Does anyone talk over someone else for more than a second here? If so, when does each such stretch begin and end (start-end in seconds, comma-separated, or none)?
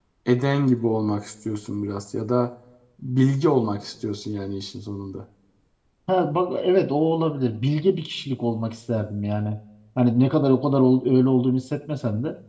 none